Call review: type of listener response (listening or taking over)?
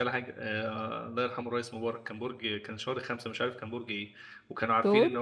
listening